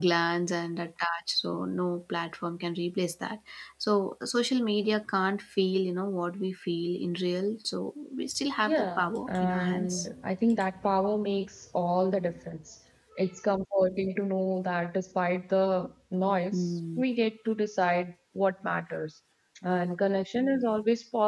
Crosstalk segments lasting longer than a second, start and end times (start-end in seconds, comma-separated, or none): 8.6-10.1